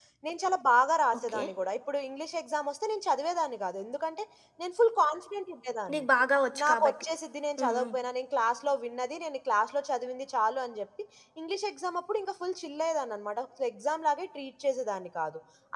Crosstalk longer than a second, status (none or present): none